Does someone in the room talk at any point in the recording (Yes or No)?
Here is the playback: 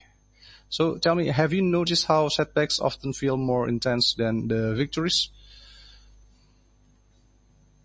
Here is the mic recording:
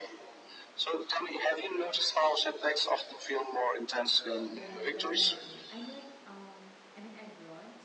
Yes